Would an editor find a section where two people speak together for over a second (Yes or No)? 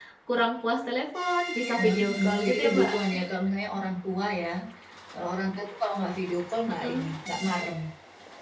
Yes